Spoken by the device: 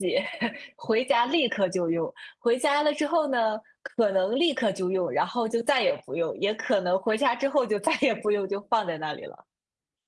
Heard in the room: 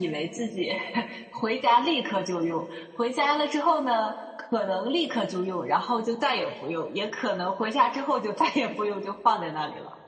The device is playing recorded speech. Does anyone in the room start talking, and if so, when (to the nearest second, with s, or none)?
none